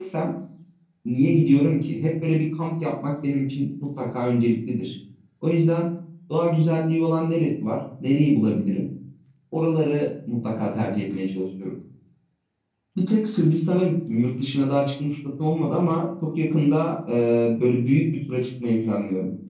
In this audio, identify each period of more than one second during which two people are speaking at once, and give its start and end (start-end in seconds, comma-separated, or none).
none